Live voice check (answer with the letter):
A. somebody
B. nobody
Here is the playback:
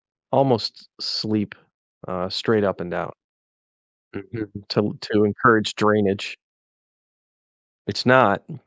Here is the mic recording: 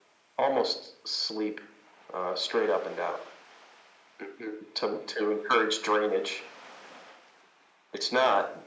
B